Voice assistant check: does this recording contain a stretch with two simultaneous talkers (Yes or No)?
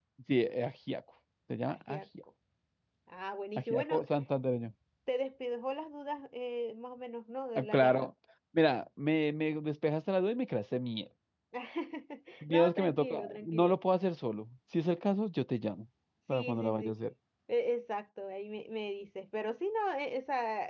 Yes